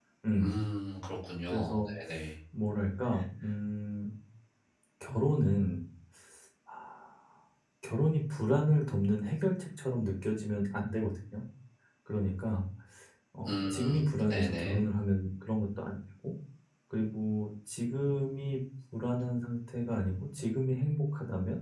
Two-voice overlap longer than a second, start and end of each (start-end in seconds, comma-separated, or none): 13.5-14.8